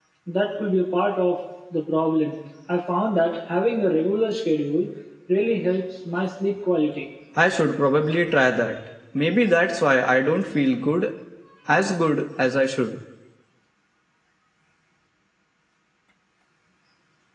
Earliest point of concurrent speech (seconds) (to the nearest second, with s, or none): none